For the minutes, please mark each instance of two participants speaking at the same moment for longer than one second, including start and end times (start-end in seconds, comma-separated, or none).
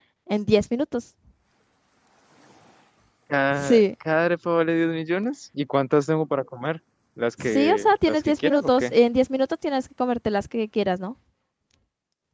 7.4-8.9